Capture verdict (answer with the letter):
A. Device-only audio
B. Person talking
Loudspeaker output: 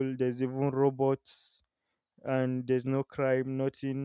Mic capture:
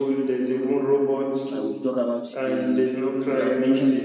B